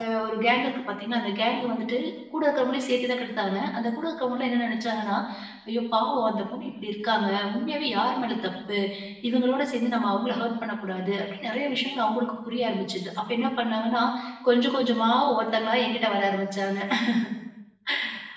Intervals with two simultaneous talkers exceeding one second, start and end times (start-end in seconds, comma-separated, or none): none